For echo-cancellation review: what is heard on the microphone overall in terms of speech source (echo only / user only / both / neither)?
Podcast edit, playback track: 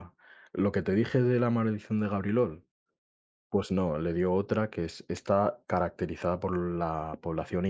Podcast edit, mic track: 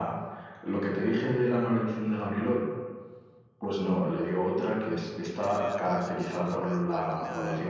both